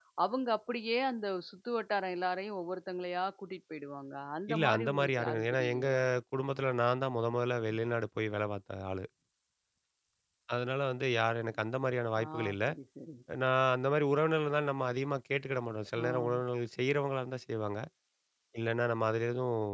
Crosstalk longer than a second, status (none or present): present